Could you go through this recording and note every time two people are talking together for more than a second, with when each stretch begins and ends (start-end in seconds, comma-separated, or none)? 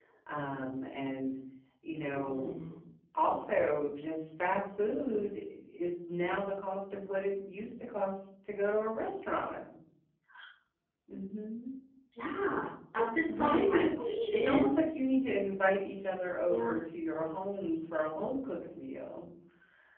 13.2-14.7